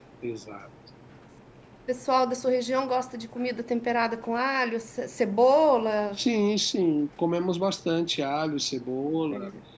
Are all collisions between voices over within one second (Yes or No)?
Yes